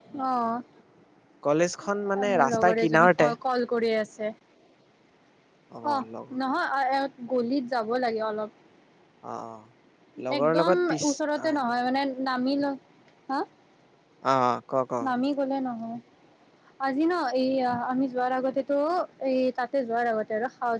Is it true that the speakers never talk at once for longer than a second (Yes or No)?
No